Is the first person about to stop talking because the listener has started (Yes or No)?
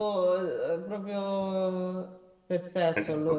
Yes